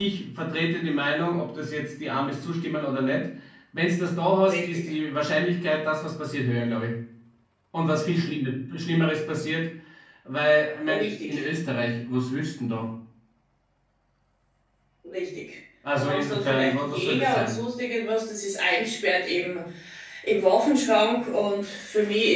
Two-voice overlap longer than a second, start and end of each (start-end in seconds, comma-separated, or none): 16.0-17.5